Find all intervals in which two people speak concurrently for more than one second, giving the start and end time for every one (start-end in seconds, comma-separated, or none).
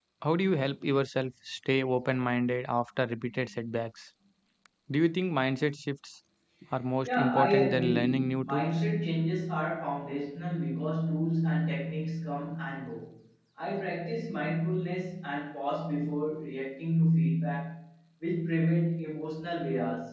7.0-8.8